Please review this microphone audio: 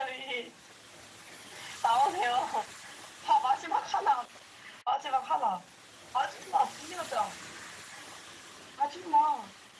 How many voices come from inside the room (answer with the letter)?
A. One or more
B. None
B